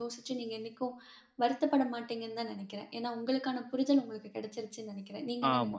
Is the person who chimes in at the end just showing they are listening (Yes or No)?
No